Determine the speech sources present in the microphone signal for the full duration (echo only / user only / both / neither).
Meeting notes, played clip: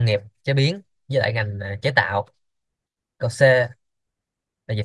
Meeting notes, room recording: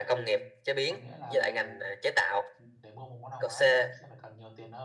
both